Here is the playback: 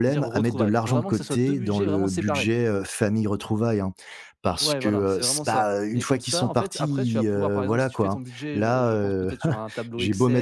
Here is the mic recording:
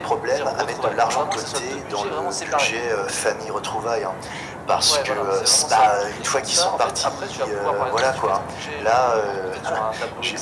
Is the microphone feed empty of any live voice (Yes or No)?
Yes